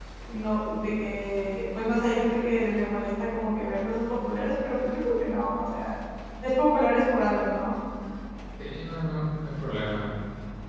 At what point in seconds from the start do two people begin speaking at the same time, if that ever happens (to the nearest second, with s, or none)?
none